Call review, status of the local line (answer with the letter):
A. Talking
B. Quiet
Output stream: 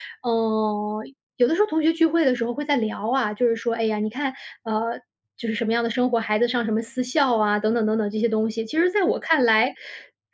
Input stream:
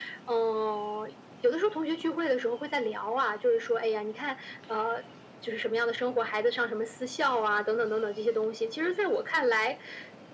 B